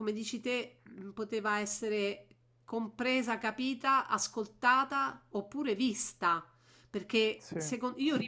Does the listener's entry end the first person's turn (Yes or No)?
No